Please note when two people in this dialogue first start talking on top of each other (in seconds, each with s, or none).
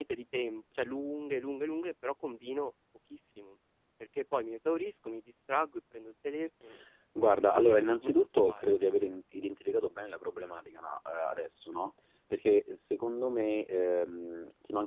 7.2 s